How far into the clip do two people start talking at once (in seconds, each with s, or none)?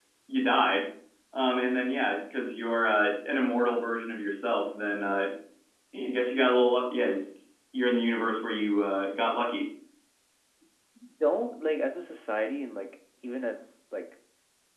none